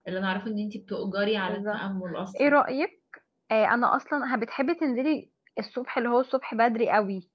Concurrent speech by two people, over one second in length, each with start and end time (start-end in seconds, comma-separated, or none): none